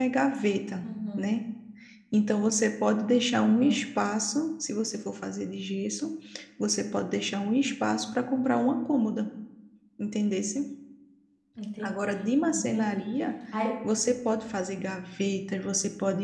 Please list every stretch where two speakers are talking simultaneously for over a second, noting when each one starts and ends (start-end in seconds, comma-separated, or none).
11.8-13.0